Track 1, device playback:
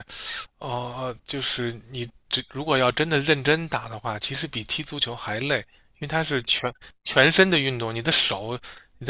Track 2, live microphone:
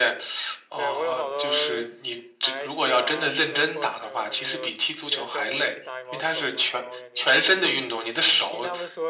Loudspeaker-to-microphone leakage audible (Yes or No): Yes